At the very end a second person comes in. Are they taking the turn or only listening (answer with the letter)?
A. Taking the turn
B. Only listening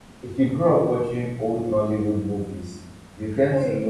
B